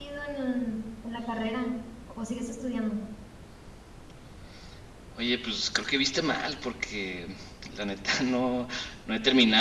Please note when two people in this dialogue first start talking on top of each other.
none

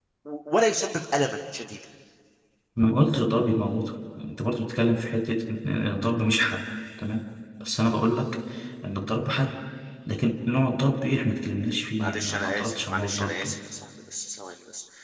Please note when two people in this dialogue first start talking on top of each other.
12 s

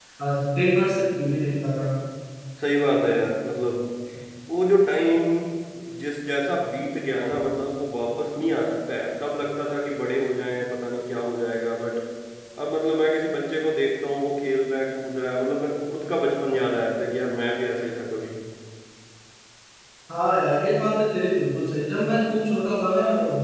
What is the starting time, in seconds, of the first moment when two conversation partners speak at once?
none

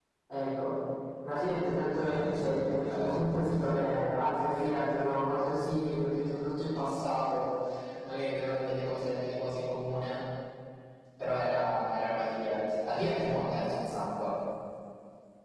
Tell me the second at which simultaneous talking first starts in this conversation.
2 s

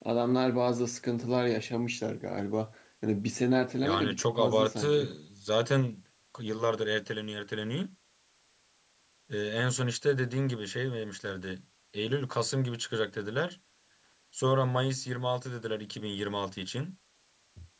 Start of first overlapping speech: 4 s

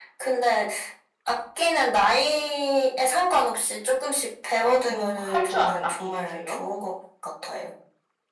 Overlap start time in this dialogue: 5 s

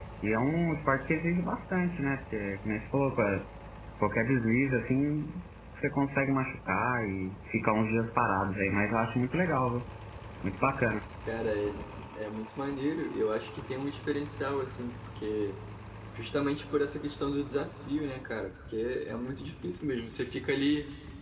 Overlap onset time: none

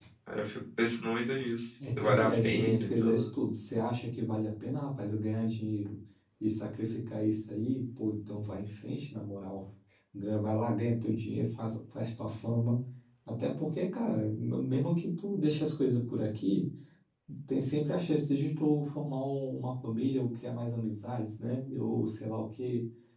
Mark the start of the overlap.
2 s

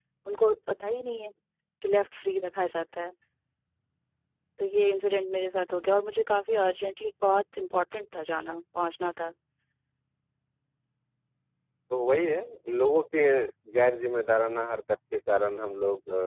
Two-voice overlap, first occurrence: none

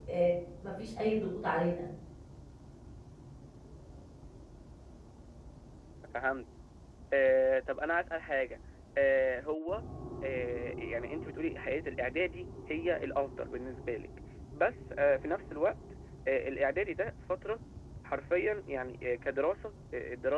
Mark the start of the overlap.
none

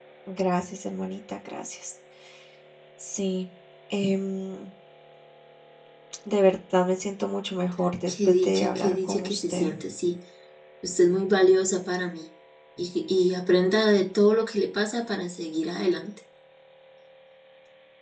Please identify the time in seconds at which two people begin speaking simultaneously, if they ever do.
8 s

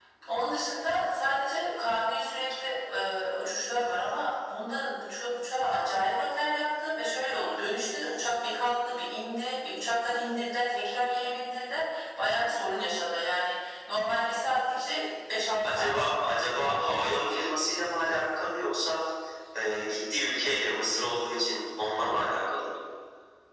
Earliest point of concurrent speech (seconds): 16 s

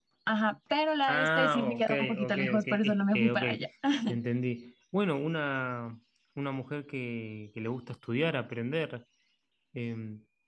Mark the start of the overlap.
1 s

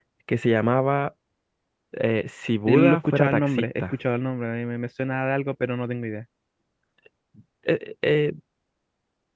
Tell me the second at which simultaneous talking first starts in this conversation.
3 s

